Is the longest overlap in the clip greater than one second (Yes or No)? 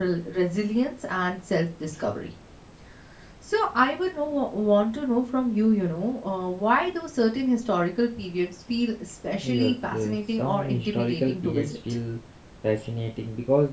Yes